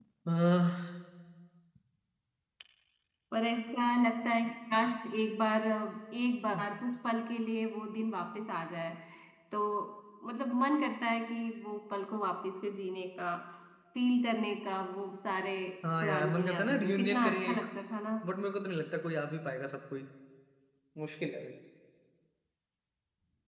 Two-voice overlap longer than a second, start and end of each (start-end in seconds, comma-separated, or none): 16.0-17.6